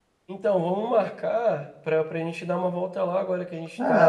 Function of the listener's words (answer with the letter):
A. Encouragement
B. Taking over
B